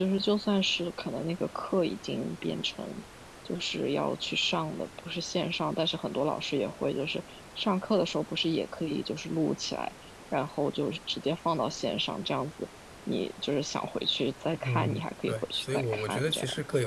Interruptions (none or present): present